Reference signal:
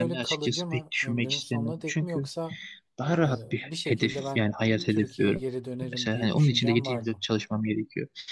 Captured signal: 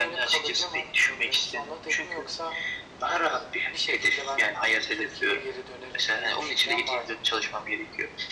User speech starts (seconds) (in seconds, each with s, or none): none